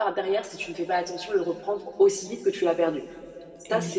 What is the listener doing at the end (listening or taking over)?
listening